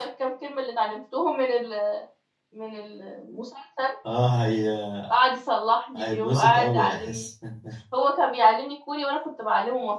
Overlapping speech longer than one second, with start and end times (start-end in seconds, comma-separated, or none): 6.0-7.2